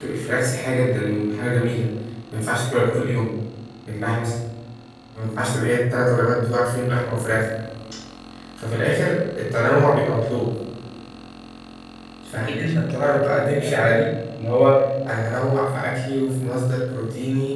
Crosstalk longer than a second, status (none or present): present